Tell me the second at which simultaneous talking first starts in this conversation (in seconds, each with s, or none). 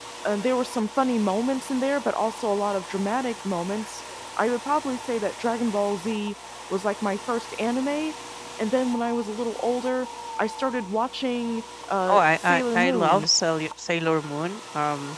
12.1 s